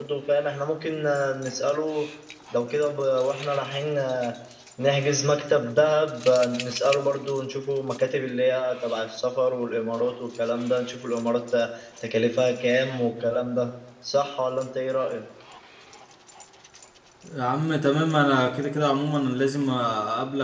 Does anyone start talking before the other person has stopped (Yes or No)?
No